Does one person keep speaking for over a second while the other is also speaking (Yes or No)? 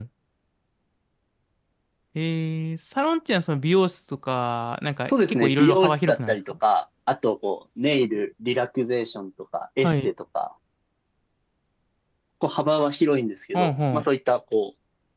Yes